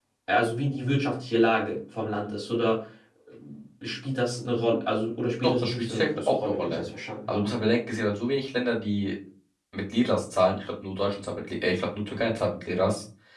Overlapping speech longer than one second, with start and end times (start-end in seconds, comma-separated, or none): 5.4-6.8